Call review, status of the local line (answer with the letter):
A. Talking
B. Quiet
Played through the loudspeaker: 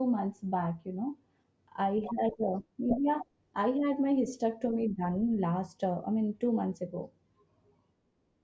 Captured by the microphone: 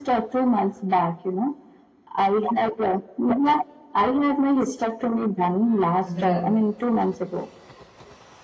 A